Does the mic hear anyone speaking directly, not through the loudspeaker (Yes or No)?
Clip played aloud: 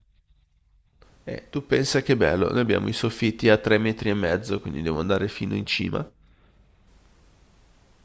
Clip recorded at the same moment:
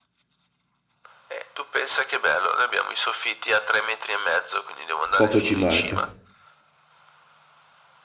Yes